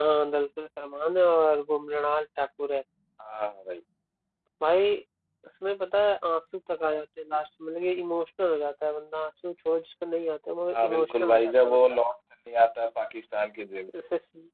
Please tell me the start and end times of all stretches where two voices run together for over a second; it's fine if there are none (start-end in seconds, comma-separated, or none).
10.7-12.0